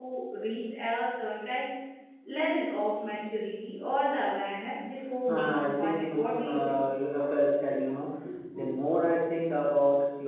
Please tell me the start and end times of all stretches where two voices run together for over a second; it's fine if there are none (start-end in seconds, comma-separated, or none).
5.3-6.8